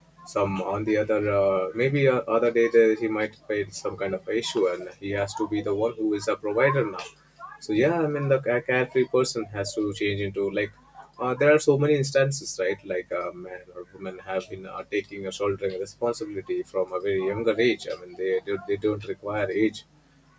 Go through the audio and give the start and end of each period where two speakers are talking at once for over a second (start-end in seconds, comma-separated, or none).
none